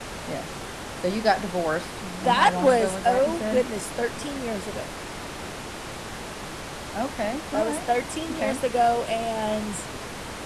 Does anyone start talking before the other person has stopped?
Yes, from 2.2 s

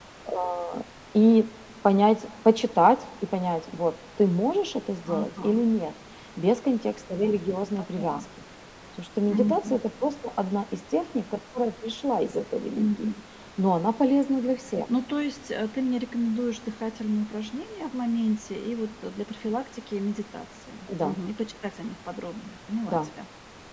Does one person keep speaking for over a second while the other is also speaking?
No

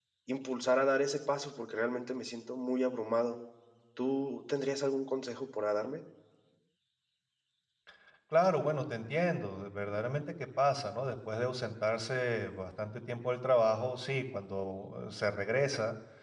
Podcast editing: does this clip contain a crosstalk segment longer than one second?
No

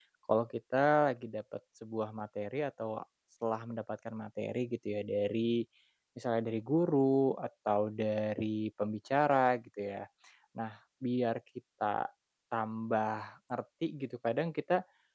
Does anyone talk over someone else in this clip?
No

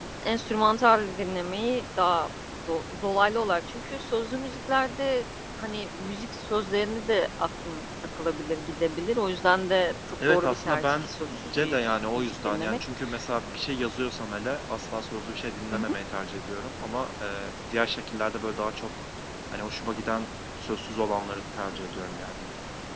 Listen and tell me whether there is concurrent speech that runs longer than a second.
Yes, from 10.2 s

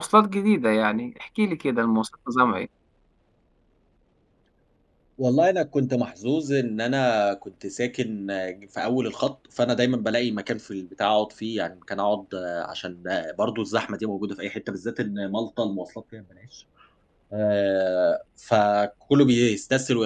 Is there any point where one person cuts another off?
No

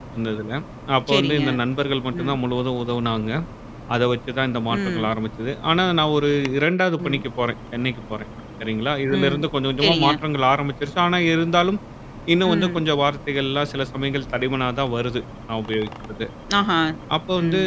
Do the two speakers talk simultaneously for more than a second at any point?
No

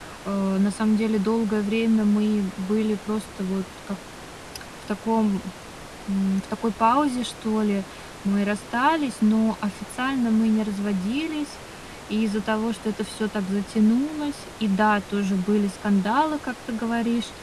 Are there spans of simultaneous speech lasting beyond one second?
No

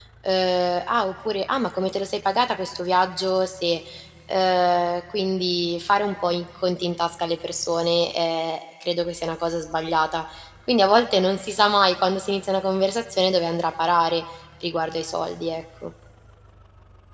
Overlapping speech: No

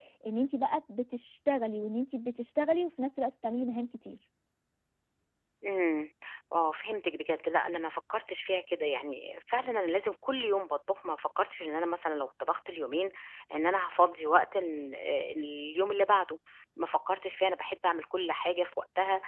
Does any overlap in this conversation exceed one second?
No

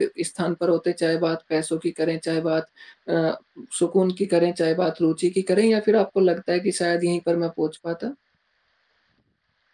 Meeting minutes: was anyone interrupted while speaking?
No

